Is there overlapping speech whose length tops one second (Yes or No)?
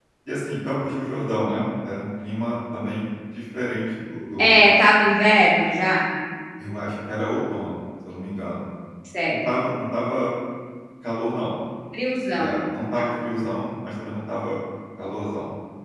No